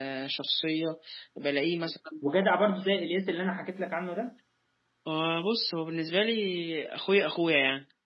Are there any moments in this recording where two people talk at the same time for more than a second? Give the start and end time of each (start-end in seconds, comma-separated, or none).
none